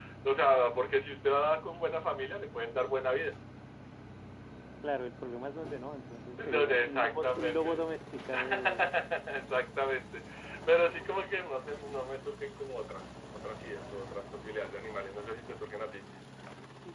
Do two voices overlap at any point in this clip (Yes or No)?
Yes